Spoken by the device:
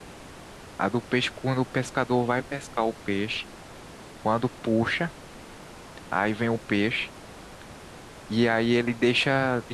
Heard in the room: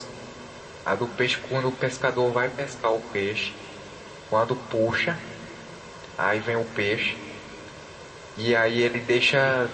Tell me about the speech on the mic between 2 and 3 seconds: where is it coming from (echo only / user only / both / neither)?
echo only